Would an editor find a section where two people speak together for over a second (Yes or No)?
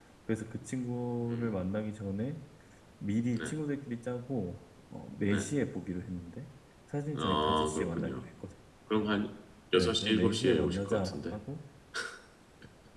Yes